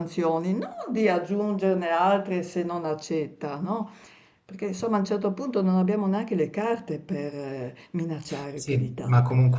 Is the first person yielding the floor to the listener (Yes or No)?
Yes